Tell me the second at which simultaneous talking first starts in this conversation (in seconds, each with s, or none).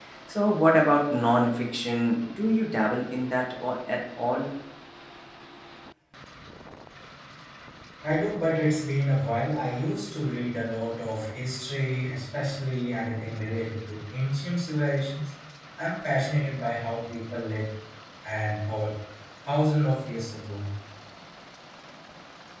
none